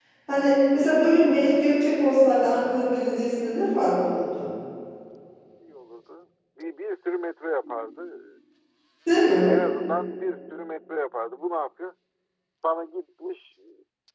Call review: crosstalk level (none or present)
none